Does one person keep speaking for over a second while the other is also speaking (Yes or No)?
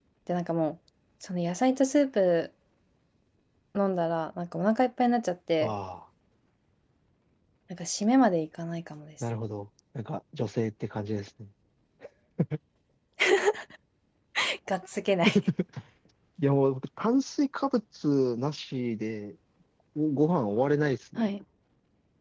No